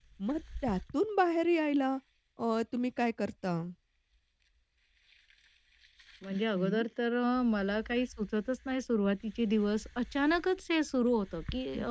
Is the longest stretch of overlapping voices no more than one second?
Yes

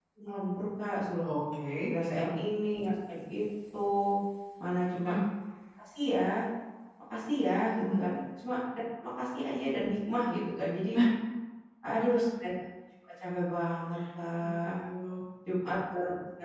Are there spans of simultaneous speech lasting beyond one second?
No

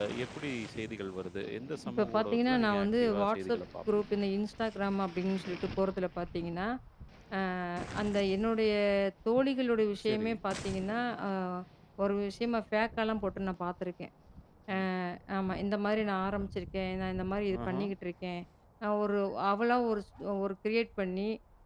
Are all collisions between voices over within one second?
No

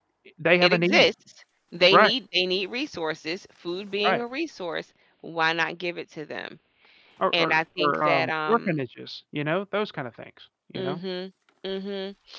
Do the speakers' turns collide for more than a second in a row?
Yes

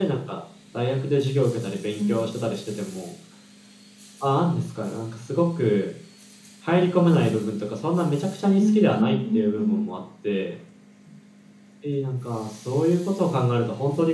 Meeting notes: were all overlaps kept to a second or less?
No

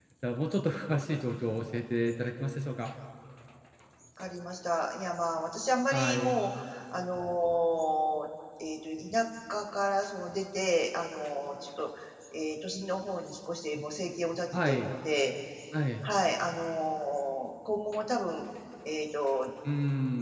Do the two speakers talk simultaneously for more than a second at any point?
No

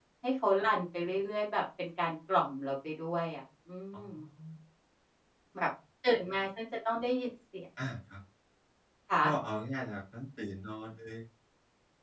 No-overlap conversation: Yes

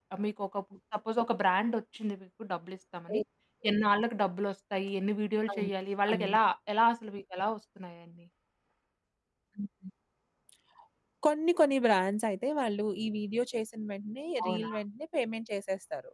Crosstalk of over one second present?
No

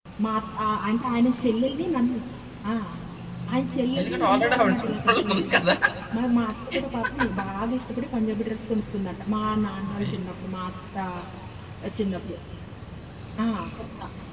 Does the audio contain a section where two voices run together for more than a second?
Yes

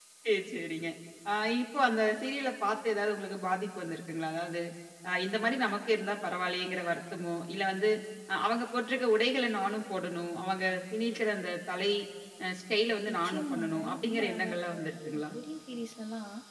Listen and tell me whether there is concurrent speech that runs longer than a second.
Yes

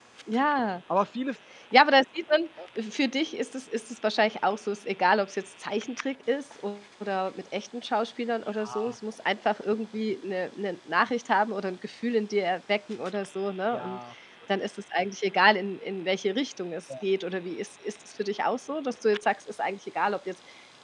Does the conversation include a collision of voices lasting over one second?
No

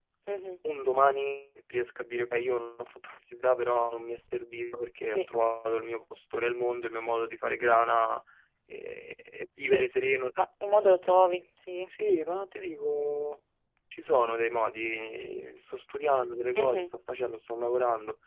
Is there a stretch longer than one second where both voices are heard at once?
No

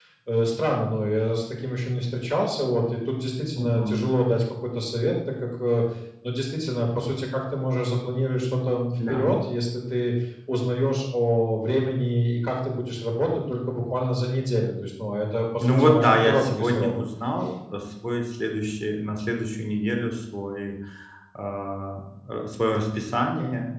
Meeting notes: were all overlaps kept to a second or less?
No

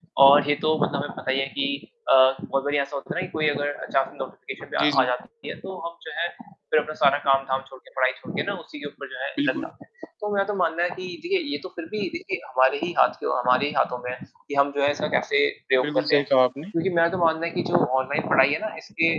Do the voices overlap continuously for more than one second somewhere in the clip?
No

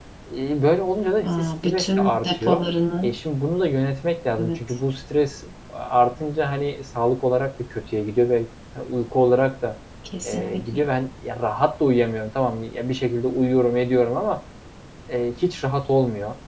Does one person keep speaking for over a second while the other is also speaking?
Yes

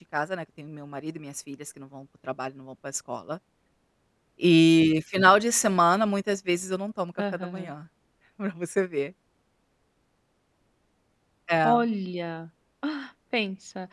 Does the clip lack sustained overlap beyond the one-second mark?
Yes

